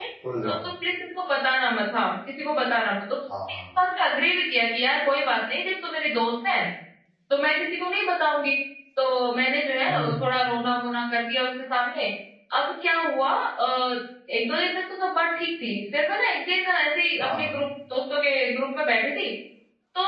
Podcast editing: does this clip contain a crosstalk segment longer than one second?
No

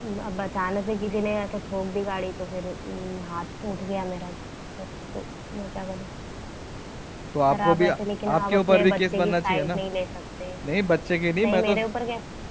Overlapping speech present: Yes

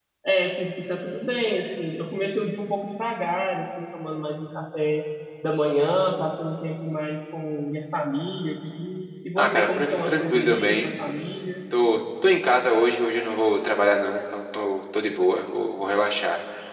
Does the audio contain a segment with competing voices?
Yes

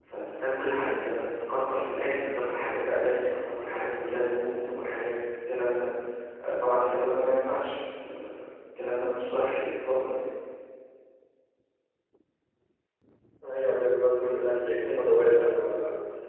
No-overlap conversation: Yes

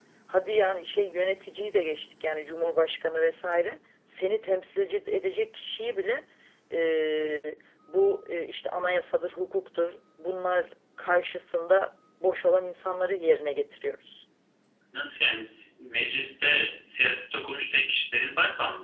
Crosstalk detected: No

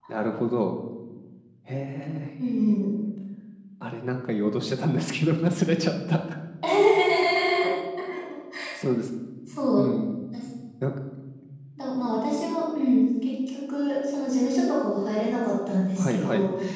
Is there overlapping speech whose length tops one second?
No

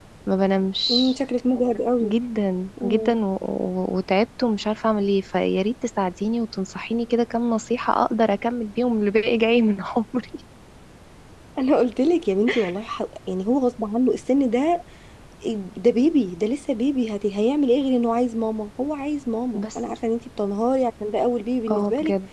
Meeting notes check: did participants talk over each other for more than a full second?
No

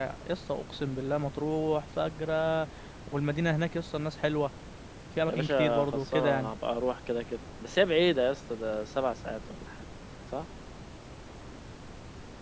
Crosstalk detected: Yes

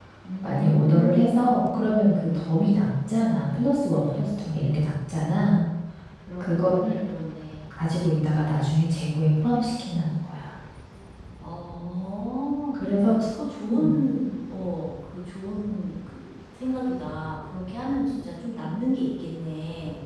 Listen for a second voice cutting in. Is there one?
Yes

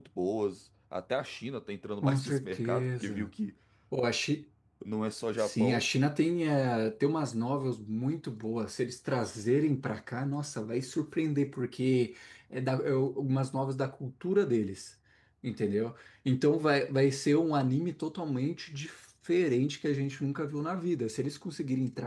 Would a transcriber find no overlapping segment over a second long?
No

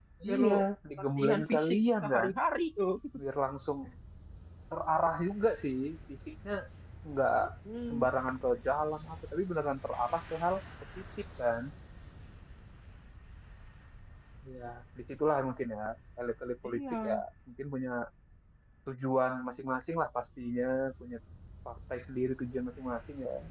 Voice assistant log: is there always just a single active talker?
No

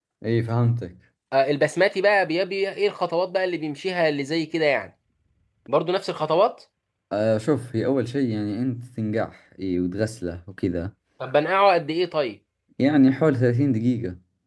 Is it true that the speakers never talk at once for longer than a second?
Yes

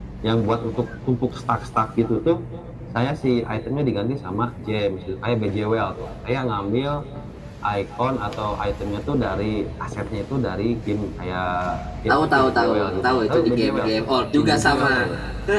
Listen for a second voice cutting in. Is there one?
Yes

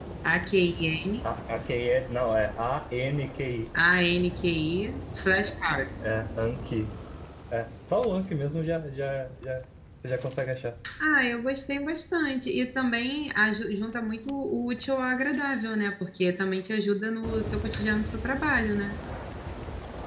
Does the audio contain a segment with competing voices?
No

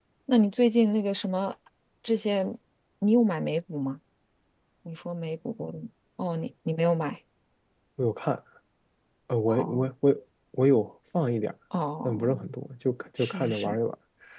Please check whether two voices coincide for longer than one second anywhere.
No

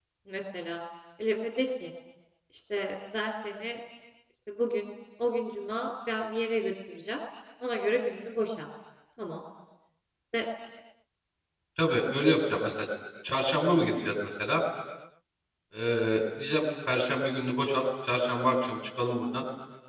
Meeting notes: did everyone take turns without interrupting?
Yes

